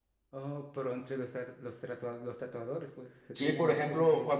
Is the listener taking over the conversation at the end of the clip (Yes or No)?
Yes